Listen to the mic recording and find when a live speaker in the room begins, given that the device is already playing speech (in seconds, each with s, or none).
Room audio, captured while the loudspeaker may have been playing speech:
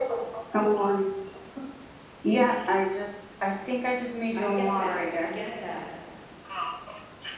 4.3 s